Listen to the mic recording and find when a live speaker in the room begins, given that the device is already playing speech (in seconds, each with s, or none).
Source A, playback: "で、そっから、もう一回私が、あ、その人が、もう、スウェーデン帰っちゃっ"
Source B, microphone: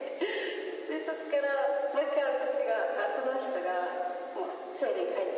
none